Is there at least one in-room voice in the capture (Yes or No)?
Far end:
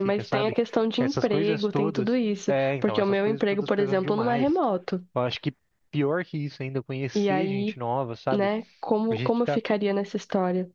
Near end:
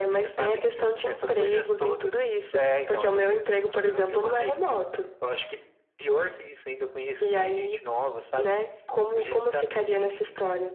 Yes